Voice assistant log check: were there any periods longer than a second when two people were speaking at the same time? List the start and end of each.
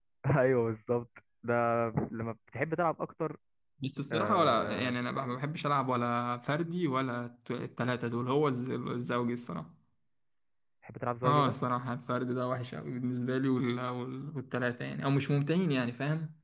4.1-5.4

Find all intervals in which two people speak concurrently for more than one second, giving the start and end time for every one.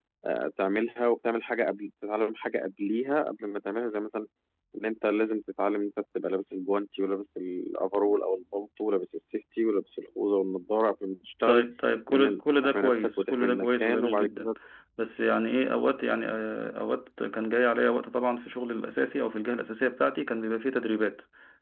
12.1-14.5

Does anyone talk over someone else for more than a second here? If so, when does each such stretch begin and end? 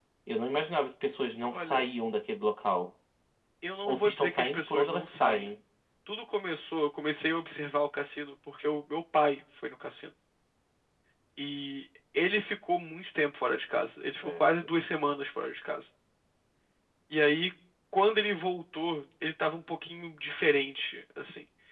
3.9-5.5

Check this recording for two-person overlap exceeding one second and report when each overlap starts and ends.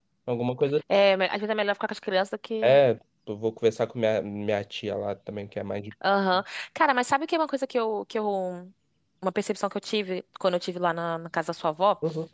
none

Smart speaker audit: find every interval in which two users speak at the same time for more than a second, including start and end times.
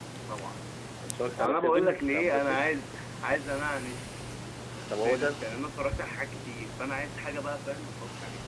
1.4-2.7

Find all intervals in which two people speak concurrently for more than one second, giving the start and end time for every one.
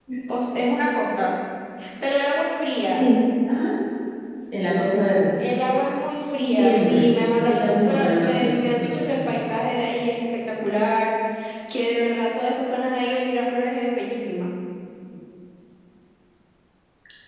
6.6-9.5

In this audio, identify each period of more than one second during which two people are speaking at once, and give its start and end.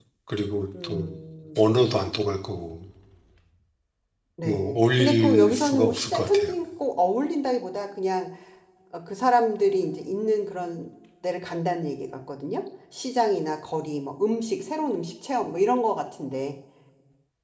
4.4-6.5

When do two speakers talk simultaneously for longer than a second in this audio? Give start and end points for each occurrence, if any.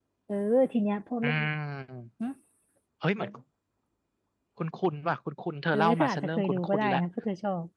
5.7-7.0

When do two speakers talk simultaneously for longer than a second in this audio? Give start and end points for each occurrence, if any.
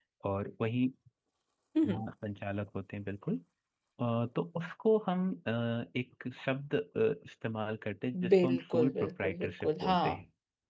8.3-10.0

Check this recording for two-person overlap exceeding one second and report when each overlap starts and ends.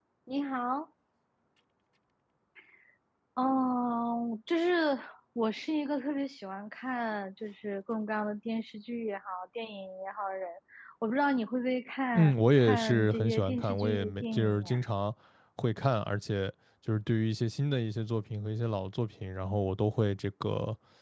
12.1-14.8

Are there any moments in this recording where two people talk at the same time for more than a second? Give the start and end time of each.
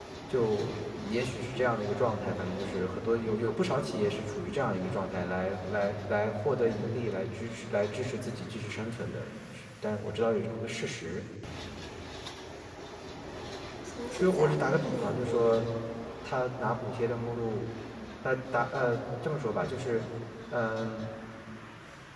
14.2-15.6

